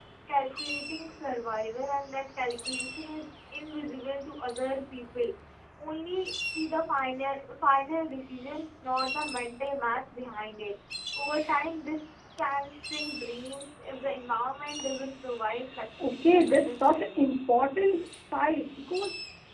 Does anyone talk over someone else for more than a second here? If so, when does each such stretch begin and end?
16.0-17.3

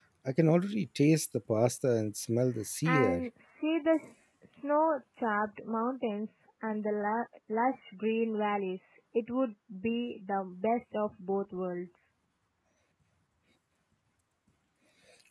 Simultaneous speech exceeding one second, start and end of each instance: none

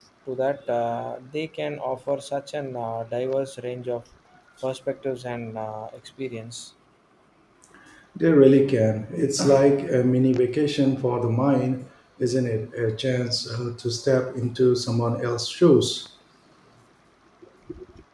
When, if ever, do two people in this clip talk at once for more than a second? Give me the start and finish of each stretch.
none

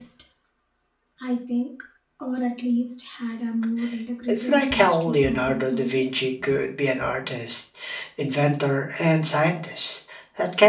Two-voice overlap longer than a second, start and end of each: 4.3-6.0

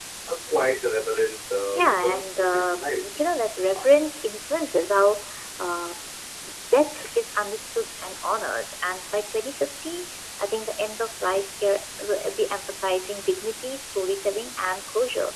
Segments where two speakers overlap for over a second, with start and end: 1.8-3.0

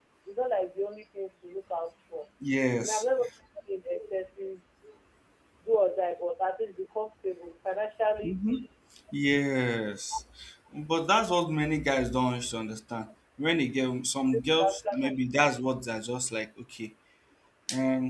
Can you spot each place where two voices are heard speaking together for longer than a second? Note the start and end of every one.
none

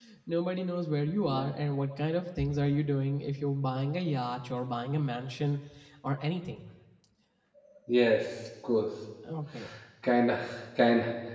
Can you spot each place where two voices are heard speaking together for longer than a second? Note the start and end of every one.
none

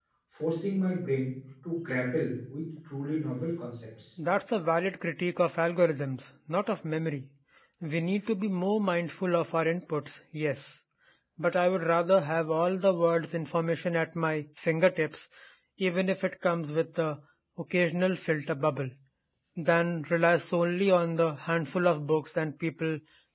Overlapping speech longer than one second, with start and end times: none

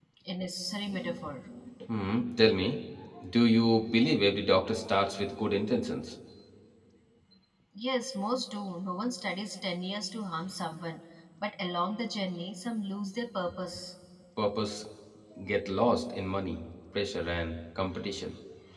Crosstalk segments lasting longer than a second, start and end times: none

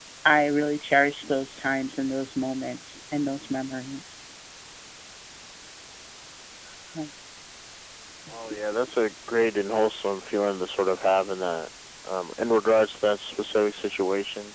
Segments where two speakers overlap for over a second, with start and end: none

